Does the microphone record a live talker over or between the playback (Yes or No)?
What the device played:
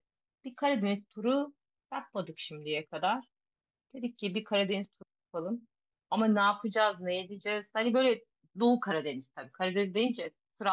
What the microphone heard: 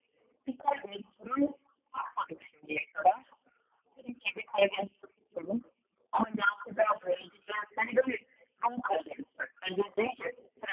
No